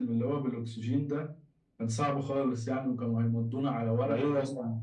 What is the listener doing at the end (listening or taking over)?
taking over